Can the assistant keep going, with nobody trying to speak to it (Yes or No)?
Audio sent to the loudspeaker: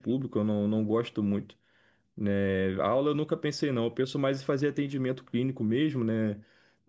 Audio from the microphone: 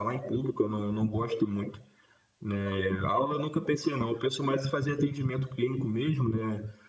Yes